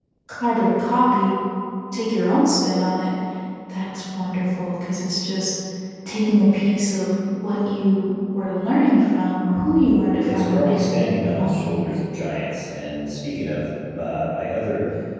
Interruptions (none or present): present